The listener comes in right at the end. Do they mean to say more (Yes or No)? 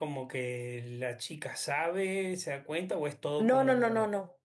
Yes